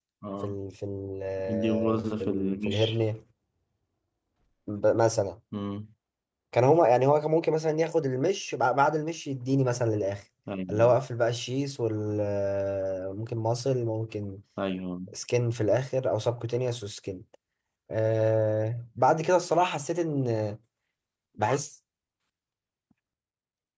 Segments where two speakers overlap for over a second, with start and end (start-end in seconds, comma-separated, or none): 1.5-3.0